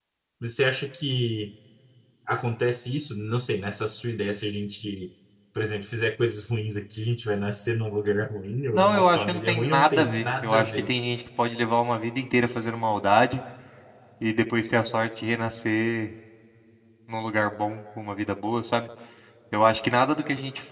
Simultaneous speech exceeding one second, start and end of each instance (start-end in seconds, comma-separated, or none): 8.7-10.9